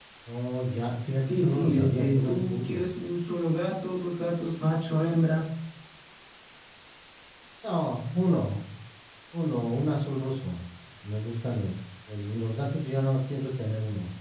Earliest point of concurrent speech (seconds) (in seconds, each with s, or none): 1.1 s